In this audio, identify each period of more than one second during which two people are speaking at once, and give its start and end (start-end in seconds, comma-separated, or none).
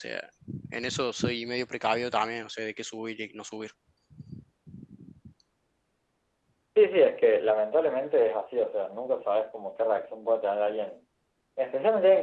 none